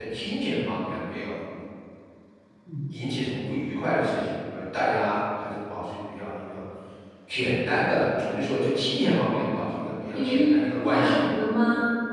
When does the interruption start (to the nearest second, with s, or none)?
10 s